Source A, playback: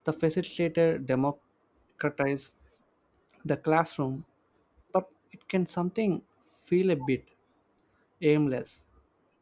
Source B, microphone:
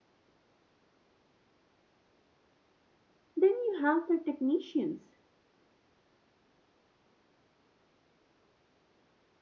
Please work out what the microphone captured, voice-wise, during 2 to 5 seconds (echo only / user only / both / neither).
user only